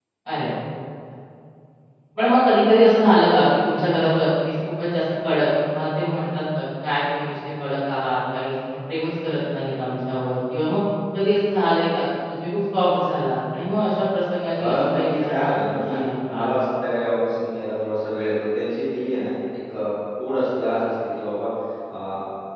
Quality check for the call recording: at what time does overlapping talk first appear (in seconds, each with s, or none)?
14.6 s